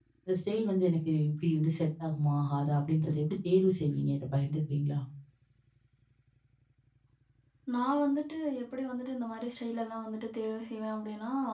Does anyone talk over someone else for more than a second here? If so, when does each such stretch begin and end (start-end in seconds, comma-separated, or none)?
none